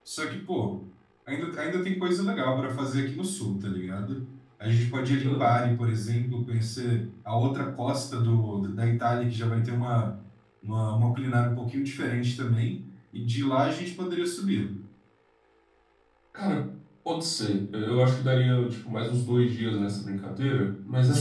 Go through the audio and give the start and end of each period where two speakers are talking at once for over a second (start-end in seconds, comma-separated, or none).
none